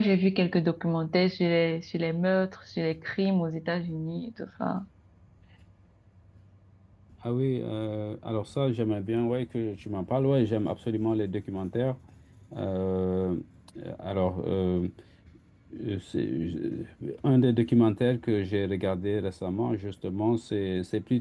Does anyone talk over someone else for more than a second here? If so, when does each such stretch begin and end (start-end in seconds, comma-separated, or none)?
none